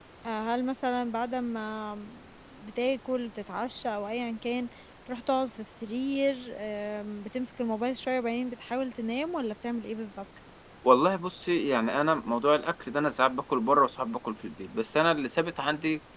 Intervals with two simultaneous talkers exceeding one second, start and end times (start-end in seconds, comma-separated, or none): none